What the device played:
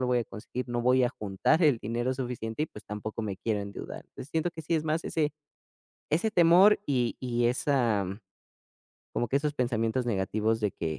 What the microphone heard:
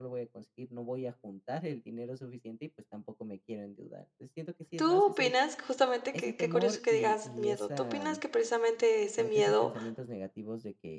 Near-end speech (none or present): present